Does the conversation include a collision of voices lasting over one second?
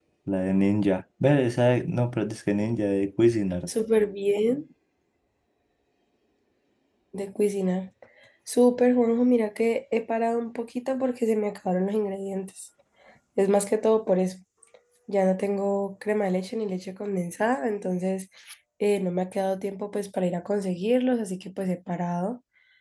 No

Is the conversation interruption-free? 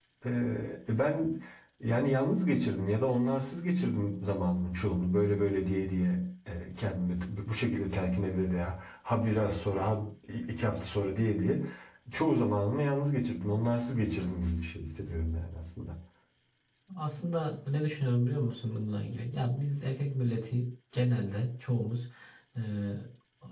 Yes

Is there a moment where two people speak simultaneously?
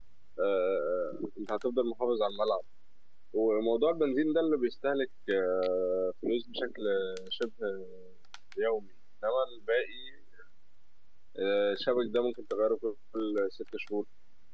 No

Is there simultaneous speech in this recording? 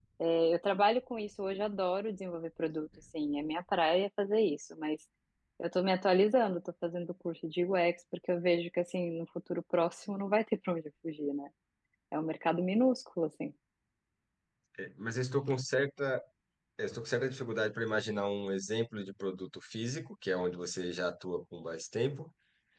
No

